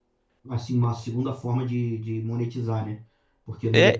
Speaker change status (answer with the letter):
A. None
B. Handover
A